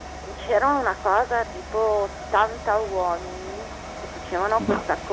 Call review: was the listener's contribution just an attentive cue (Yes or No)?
Yes